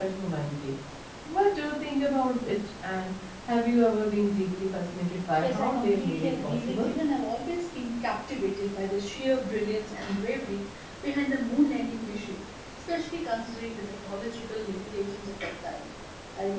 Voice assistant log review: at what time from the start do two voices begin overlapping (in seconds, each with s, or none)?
5.4 s